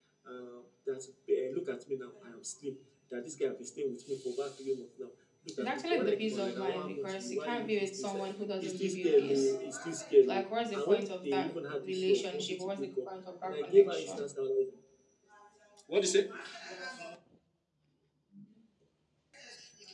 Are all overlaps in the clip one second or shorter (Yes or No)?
No